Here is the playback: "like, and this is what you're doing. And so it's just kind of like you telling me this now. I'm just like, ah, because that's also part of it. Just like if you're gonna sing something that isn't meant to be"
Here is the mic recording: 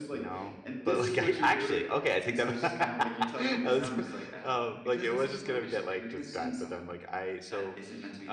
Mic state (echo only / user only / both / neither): both